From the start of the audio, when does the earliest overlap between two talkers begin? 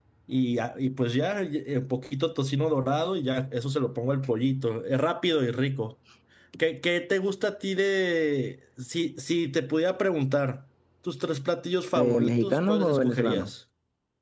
12 s

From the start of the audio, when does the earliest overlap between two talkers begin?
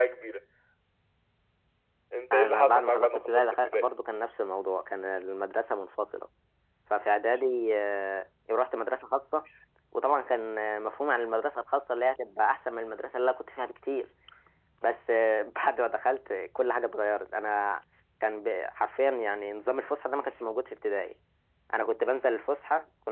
2 s

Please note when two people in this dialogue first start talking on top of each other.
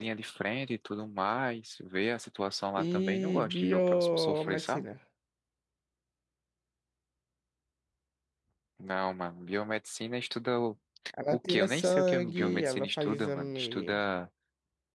3 s

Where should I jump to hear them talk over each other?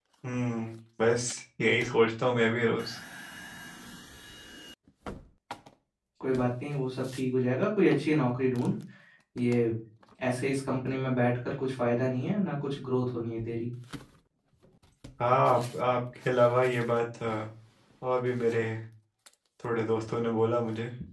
none

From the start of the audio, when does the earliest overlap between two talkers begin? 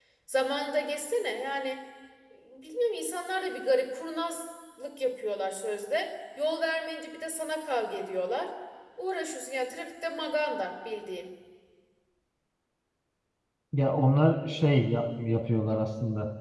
none

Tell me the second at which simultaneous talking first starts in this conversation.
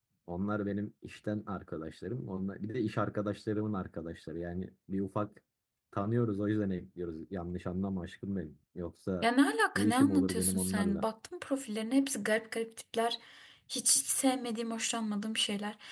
10 s

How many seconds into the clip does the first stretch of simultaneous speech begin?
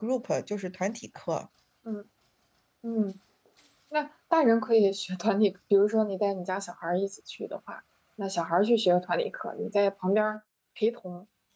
none

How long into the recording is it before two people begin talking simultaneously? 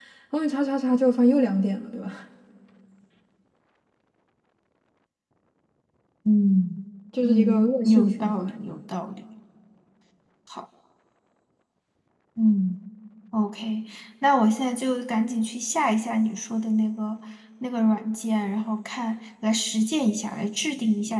7 s

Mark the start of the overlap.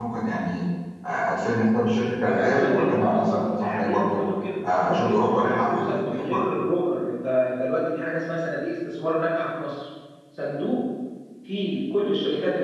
2 s

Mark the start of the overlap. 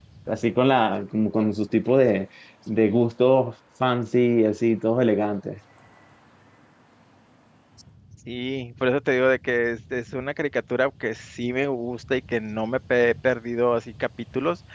none

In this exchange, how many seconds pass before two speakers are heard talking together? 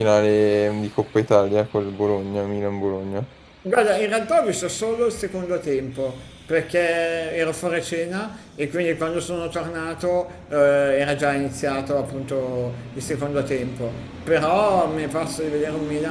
none

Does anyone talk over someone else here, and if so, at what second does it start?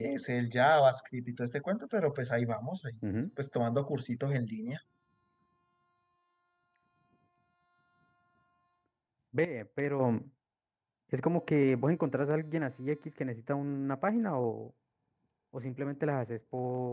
none

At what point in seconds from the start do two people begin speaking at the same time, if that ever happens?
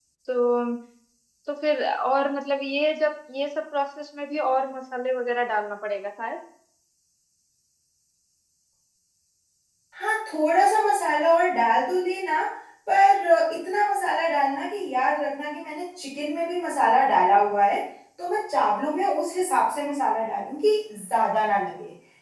none

